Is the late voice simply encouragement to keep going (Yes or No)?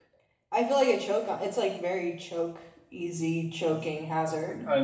No